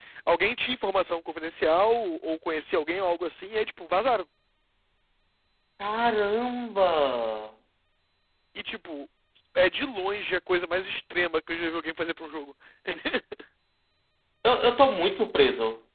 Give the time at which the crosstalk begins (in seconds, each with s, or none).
none